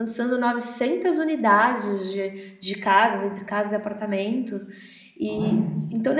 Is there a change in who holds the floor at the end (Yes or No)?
No